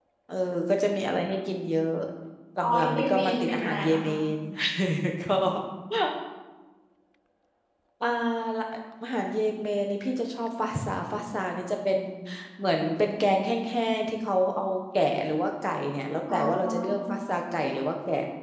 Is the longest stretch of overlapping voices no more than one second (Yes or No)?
No